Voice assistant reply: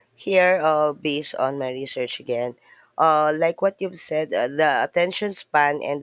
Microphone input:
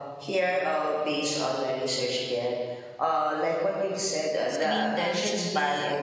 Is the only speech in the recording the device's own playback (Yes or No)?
No